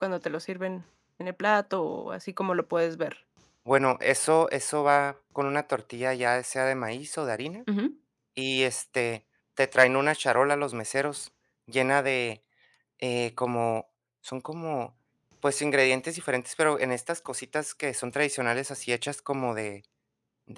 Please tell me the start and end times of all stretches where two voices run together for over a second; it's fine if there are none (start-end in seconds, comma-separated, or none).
none